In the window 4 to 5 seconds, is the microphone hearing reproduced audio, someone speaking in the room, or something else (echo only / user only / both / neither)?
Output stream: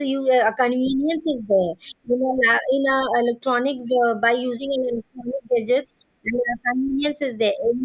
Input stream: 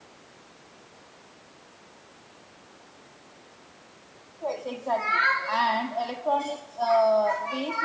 user only